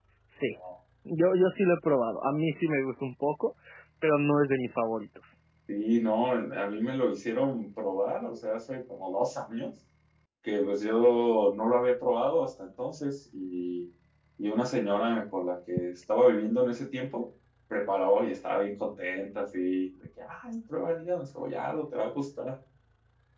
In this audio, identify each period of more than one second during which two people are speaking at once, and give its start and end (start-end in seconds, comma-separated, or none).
none